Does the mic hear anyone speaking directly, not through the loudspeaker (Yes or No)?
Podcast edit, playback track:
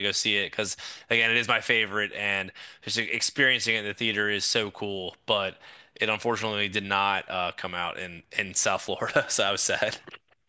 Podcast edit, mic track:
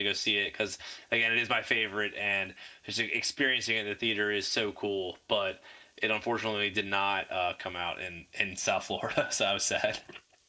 No